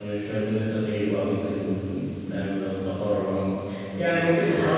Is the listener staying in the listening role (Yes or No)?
Yes